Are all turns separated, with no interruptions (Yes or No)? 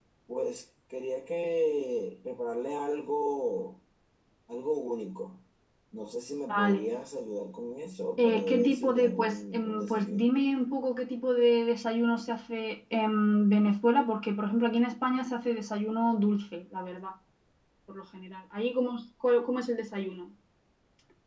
No